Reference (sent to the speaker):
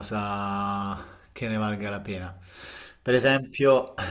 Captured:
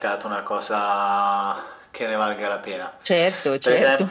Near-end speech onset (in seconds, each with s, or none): 3.0 s